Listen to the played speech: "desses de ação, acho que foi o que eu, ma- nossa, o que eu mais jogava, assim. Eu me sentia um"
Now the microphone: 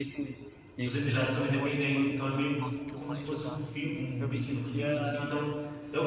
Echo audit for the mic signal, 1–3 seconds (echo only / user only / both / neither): both